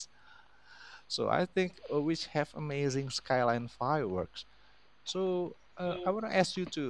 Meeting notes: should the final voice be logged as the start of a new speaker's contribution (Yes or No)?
No